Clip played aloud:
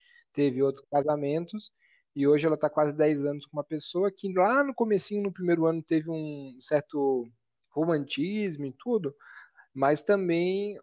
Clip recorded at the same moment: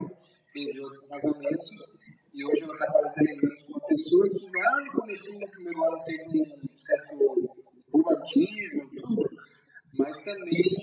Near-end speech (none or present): none